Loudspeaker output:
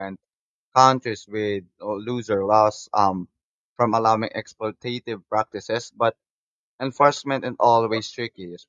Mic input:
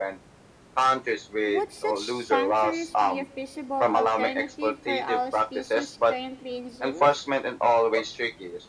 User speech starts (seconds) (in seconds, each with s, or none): 1.4 s